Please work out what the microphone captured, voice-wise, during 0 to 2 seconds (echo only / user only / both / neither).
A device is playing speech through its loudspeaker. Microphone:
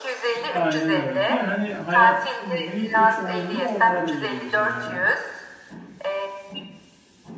both